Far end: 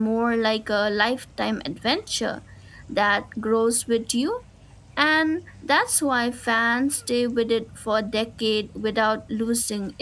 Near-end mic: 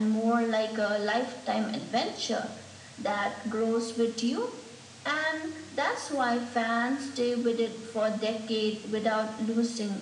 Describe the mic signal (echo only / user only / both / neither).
echo only